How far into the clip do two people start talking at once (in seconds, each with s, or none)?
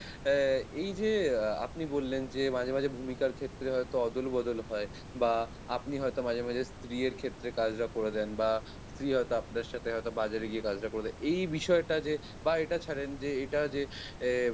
none